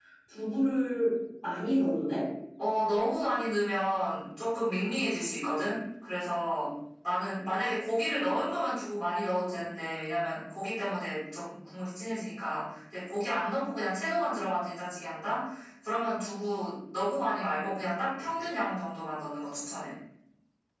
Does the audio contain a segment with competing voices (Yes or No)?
No